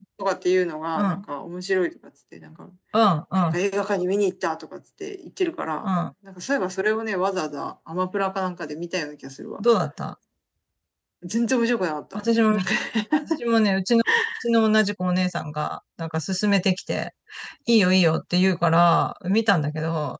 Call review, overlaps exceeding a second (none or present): none